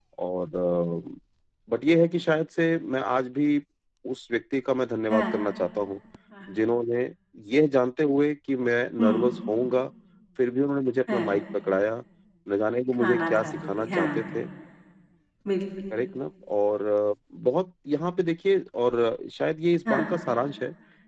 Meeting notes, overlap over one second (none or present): present